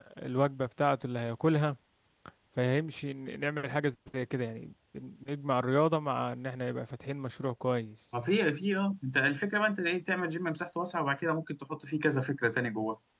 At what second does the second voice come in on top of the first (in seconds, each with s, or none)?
none